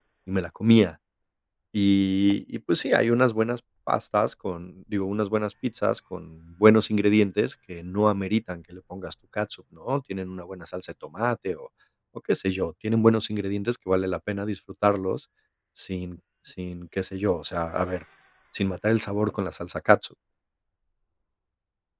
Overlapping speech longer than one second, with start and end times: none

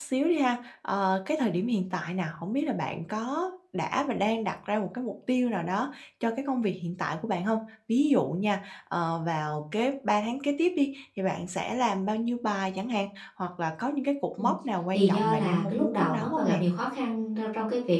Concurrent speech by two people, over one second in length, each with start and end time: 14.9-16.6

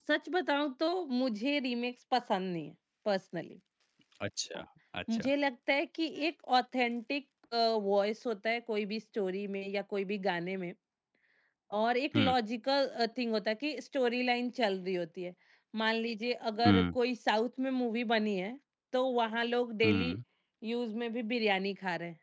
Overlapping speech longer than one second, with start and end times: none

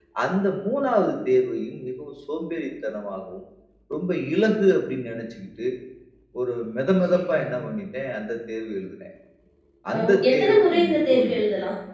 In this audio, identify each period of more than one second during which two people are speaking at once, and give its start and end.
10.0-11.4

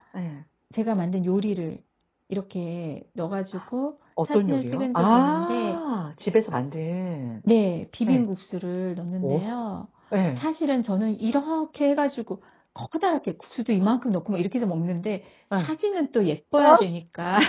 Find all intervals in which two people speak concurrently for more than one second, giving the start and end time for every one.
4.2-5.8

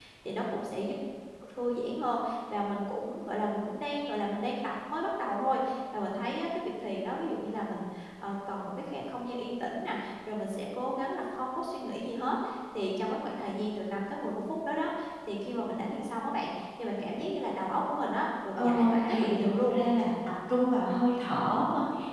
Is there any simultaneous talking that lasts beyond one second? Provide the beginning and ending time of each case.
18.5-19.8

